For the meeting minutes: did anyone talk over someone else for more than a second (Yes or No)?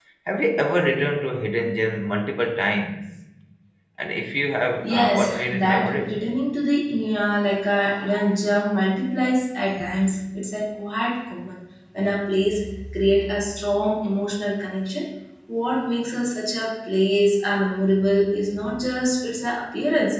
Yes